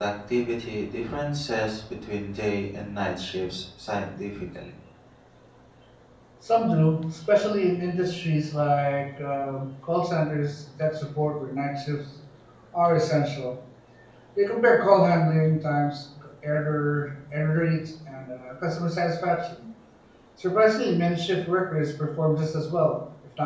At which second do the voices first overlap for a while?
none

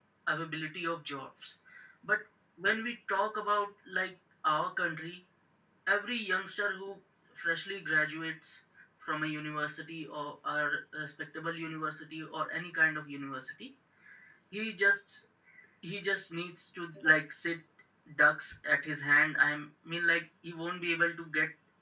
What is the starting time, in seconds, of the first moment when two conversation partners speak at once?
none

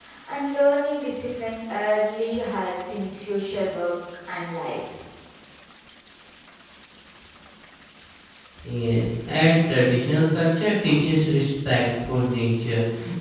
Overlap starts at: none

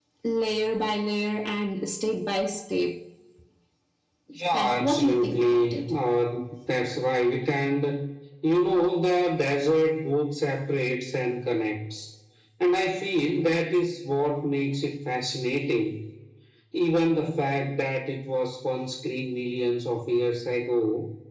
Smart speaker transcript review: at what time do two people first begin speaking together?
4.5 s

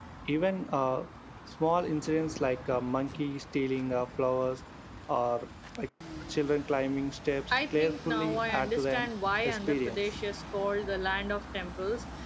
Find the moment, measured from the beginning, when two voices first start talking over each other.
7.5 s

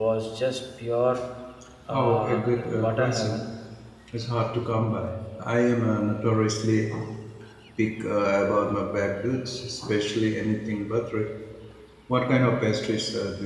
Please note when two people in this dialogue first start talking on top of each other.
1.9 s

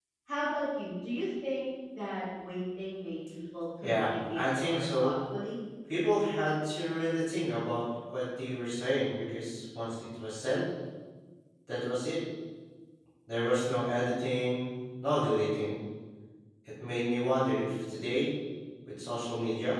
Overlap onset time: 3.8 s

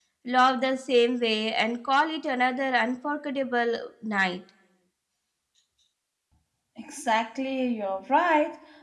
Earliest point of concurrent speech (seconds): none

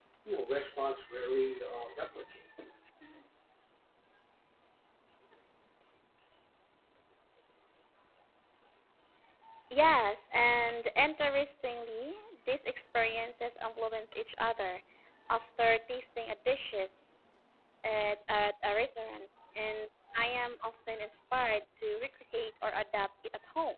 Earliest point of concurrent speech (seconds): none

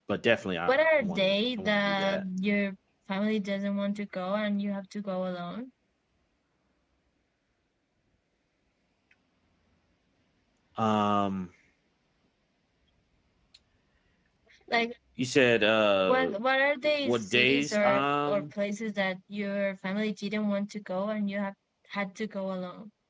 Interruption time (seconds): 0.7 s

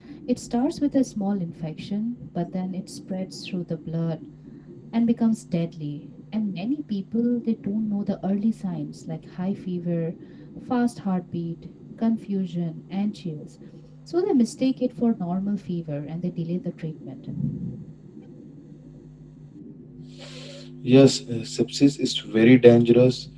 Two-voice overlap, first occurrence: none

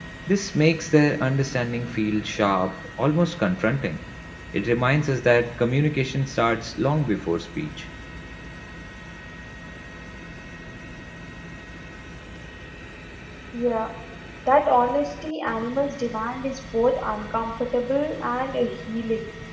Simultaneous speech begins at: none

